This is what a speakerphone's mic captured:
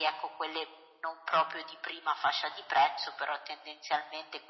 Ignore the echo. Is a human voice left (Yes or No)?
No